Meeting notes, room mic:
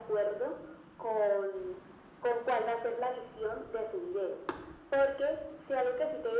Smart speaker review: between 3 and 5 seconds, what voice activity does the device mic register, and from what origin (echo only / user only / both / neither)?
echo only